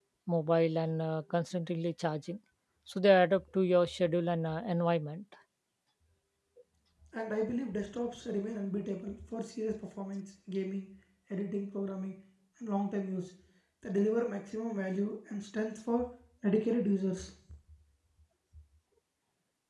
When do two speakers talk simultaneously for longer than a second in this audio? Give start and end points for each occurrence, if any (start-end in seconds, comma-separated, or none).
none